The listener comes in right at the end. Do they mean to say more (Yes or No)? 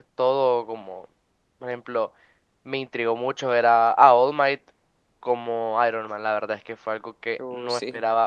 No